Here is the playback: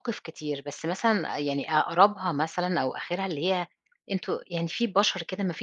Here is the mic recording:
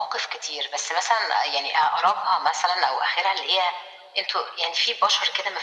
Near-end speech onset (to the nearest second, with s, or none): none